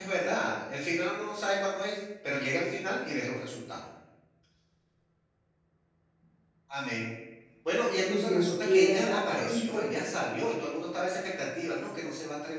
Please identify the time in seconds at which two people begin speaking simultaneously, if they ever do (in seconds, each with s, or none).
8.0 s